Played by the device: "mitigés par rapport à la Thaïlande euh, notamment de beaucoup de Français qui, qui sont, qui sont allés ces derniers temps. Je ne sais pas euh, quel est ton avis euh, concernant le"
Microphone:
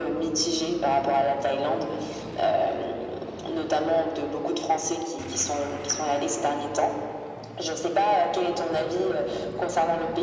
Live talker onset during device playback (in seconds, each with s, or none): none